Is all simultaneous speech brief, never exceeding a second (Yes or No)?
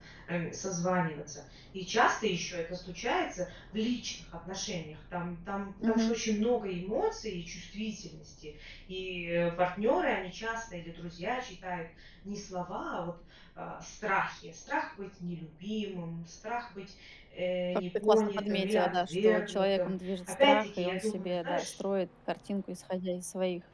No